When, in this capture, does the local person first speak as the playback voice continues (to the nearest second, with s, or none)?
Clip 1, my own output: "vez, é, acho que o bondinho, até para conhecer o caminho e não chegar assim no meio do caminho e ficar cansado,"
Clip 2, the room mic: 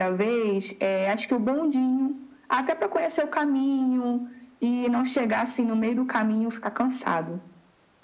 none